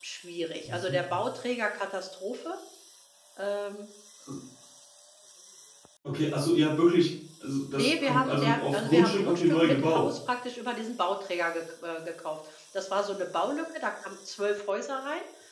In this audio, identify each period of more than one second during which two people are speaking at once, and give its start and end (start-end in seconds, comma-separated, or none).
7.8-10.1